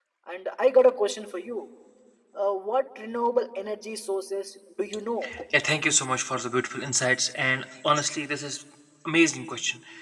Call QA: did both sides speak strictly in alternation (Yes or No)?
Yes